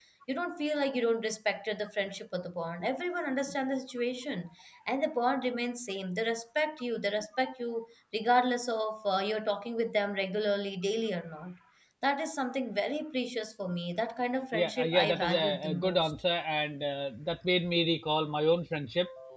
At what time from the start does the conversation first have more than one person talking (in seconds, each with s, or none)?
14.5 s